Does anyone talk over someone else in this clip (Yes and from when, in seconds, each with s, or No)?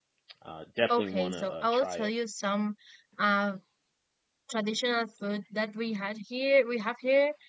Yes, from 0.9 s